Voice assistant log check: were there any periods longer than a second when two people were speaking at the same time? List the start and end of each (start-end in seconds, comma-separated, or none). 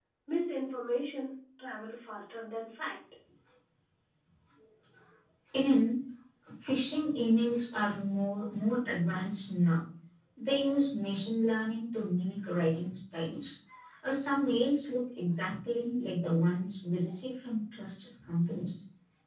none